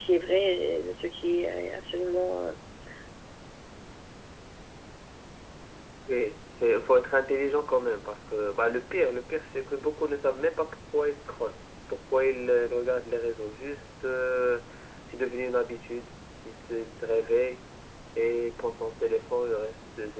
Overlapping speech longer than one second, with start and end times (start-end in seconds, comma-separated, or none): none